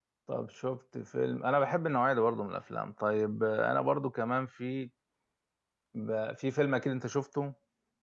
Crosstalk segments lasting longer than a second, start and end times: none

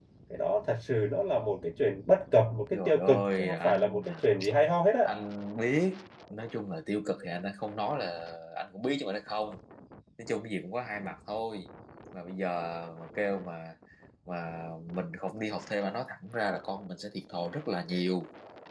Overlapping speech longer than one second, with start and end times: 2.7-4.0

